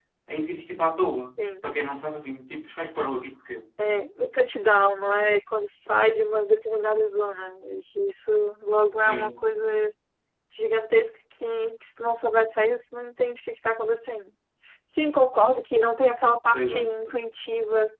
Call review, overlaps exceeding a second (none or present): none